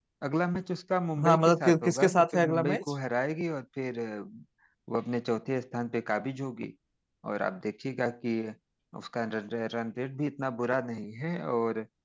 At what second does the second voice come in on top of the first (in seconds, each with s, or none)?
1.2 s